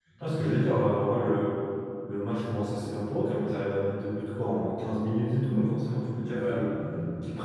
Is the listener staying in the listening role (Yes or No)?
Yes